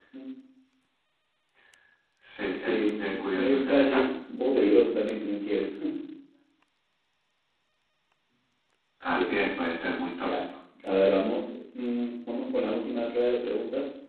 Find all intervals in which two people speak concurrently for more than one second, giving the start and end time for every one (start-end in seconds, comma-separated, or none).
2.6-4.0